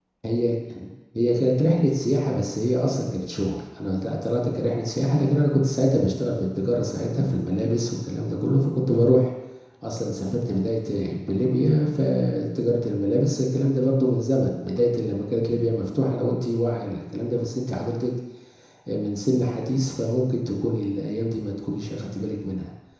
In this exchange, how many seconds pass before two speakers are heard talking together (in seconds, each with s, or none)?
none